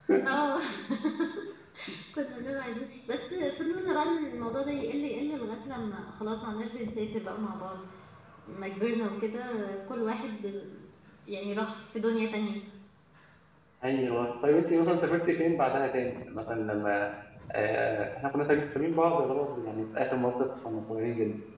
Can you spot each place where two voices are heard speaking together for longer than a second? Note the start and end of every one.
none

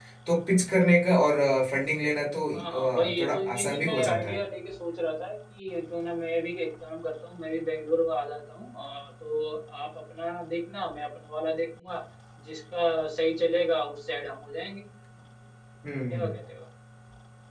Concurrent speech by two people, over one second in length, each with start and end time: 2.5-4.4

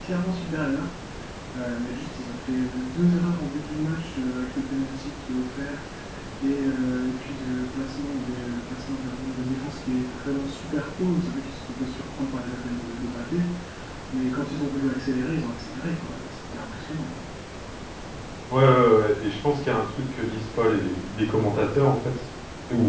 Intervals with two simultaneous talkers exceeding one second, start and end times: none

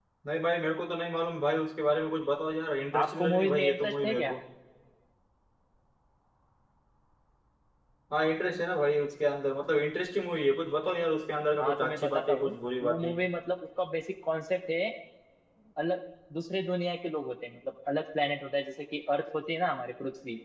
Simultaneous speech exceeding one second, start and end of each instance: 3.0-4.4, 11.6-13.1

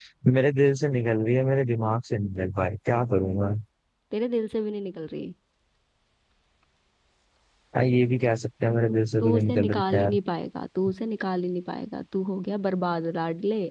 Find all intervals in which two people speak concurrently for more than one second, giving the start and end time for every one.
8.9-10.1

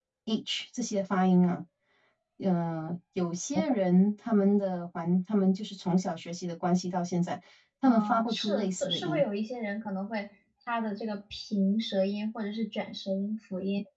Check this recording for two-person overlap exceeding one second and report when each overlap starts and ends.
7.9-9.2

